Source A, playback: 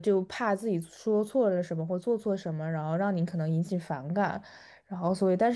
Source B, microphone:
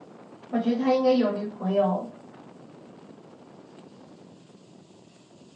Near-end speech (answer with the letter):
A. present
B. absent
A